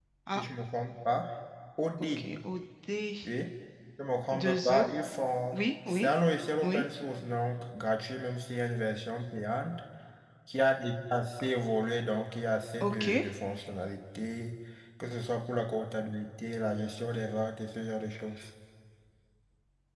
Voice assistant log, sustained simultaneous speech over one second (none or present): none